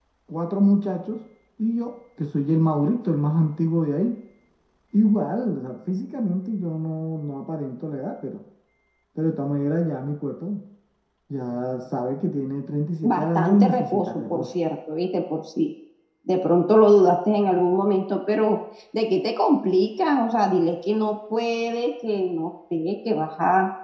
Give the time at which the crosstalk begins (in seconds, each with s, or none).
13.0 s